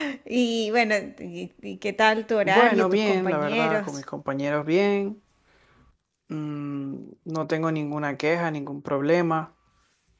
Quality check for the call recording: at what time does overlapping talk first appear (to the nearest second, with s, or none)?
2 s